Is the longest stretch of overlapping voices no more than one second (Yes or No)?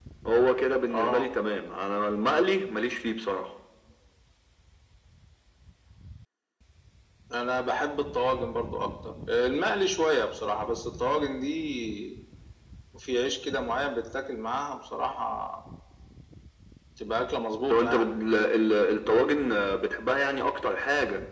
Yes